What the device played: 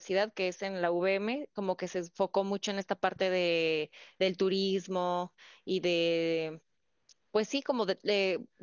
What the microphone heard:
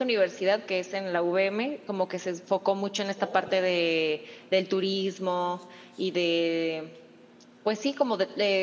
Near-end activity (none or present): present